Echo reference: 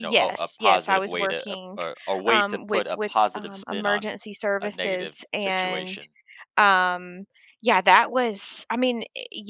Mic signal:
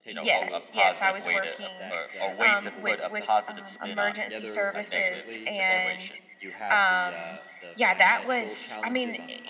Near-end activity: present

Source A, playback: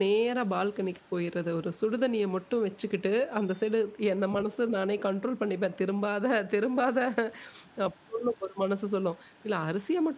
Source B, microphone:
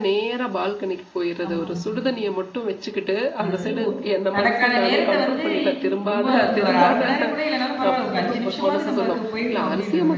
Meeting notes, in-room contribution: present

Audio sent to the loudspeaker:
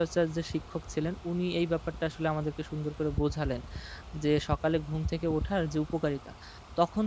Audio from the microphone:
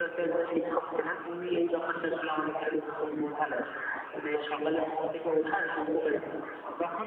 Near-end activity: none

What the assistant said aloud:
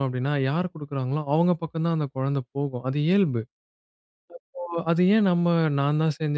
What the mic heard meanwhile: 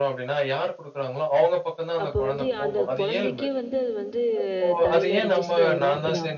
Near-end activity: present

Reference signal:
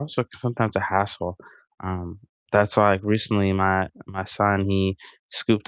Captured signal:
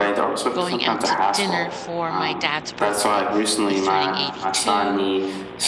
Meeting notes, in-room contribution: present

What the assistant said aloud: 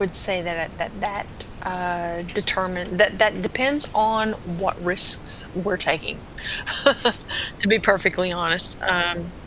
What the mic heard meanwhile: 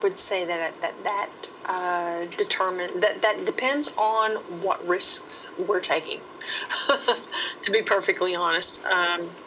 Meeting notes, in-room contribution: none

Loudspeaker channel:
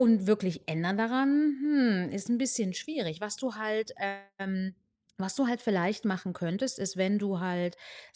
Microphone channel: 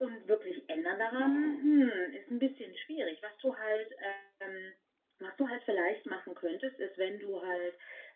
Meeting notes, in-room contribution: present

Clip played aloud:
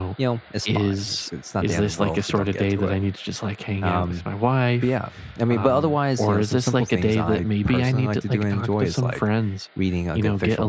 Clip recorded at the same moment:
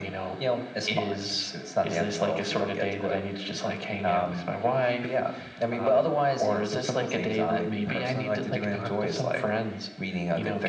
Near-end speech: none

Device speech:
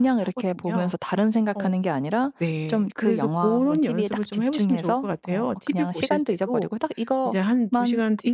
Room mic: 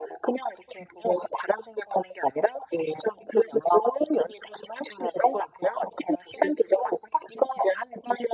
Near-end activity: none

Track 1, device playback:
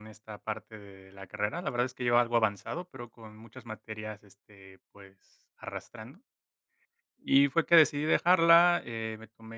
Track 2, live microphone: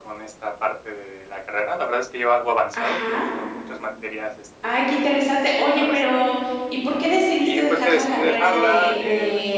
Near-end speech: present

